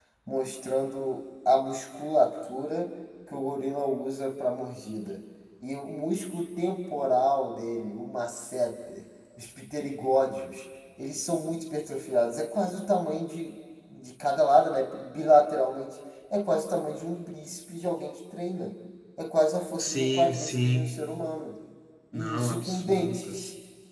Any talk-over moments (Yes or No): Yes